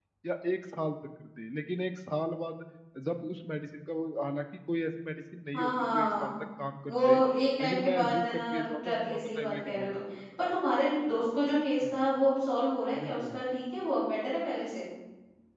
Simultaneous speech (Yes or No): Yes